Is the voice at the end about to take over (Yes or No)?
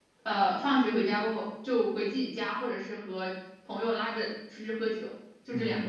Yes